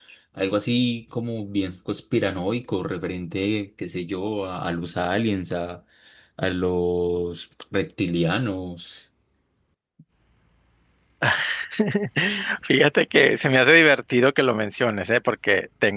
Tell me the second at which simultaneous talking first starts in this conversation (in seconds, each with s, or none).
none